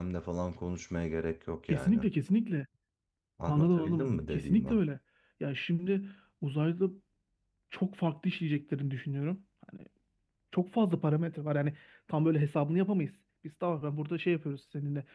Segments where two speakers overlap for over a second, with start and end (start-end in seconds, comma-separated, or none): 3.5-4.8